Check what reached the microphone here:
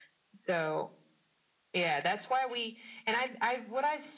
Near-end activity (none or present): none